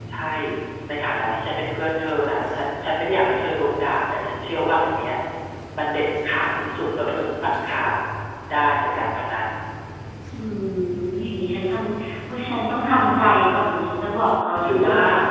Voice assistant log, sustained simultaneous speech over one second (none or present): none